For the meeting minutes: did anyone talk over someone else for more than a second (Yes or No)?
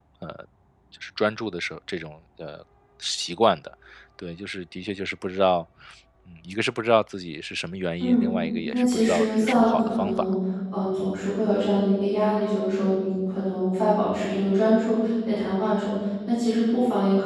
Yes